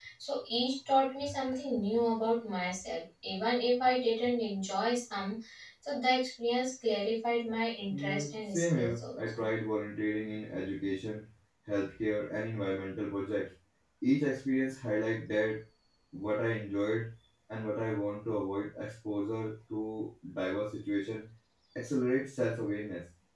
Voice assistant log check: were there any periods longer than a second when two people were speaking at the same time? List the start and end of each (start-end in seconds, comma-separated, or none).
7.9-9.4